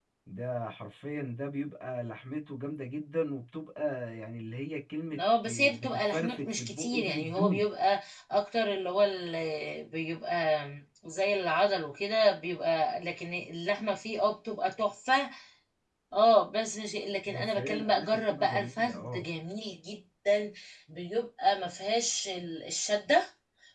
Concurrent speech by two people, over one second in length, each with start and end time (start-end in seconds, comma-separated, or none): 5.2-7.7, 17.3-19.2